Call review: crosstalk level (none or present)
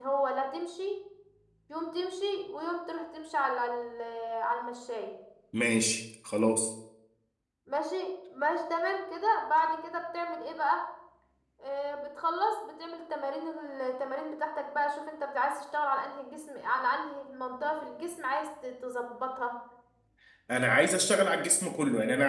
none